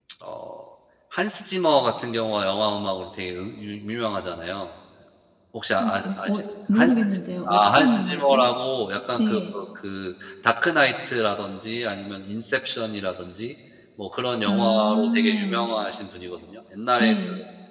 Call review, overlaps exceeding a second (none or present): present